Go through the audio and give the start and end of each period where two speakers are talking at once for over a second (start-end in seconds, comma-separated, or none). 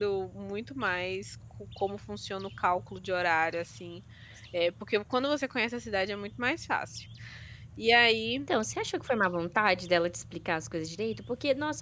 none